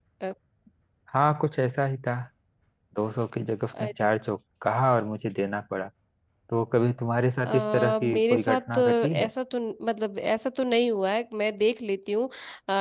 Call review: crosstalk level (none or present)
present